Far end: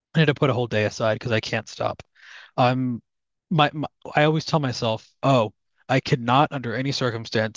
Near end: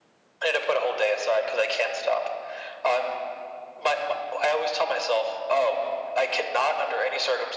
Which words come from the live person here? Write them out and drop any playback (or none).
none